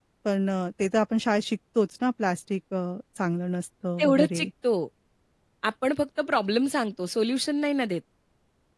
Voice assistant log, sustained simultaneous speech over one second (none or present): none